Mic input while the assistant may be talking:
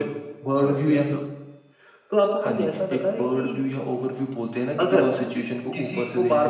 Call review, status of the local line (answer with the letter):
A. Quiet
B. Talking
A